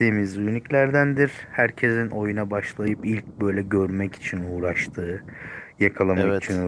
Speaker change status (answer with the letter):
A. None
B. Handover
A